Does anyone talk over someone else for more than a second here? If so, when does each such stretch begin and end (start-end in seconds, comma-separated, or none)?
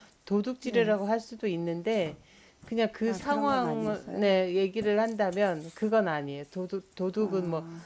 3.0-4.3